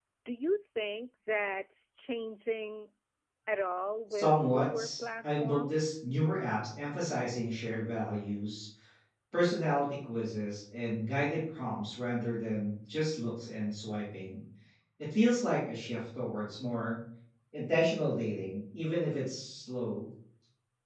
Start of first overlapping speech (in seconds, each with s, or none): 4.1 s